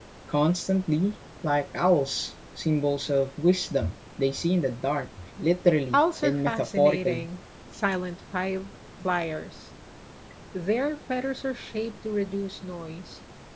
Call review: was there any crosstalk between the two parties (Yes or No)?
Yes